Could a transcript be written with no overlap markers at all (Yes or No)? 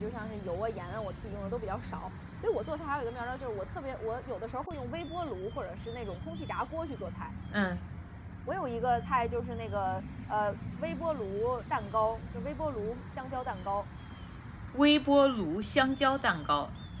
Yes